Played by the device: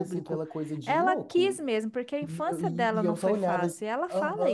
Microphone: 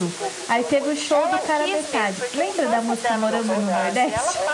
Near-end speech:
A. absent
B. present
B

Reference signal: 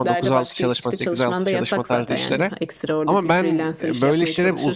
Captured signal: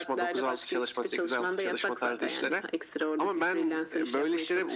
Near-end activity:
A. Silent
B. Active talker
A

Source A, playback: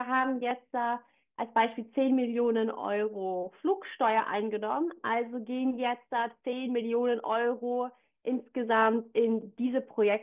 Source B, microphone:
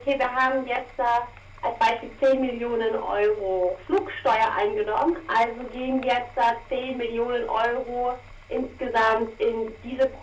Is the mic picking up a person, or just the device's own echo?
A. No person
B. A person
A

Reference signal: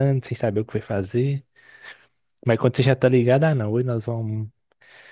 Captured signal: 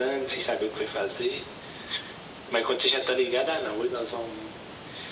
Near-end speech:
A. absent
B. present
A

